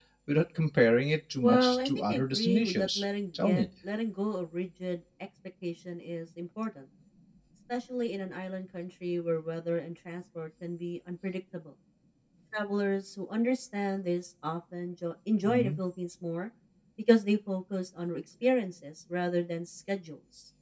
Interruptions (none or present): present